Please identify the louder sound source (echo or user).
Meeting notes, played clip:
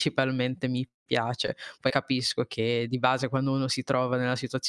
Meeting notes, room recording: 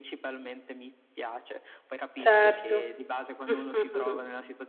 user